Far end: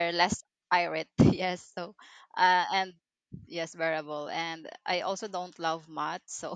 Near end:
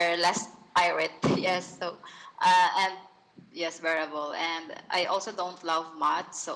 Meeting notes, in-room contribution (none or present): none